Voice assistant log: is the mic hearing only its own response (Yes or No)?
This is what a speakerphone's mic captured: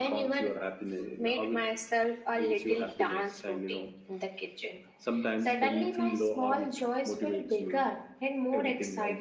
Yes